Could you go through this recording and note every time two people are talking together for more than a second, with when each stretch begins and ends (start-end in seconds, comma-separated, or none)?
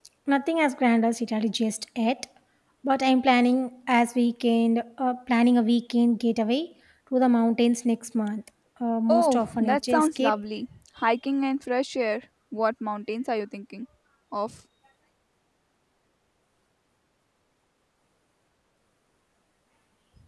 9.1-10.4